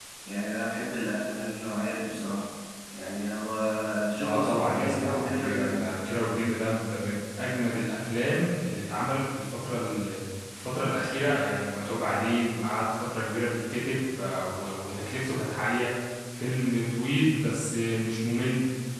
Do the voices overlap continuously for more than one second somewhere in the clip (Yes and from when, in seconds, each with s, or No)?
Yes, from 4.2 s